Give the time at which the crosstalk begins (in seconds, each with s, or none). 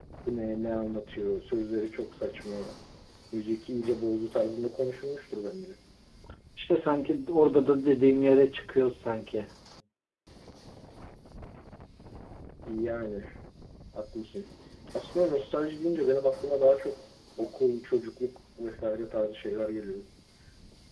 none